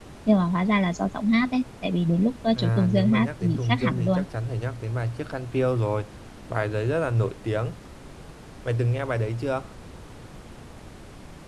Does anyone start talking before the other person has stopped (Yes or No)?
Yes